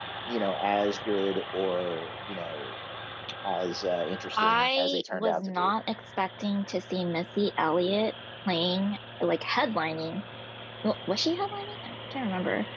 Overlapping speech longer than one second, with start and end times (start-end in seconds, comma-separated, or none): 4.4-5.7